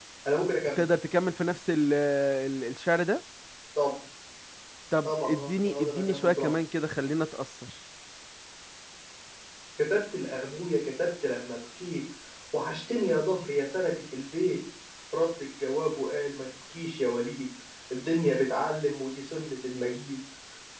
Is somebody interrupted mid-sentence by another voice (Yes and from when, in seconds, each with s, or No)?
Yes, from 5.0 s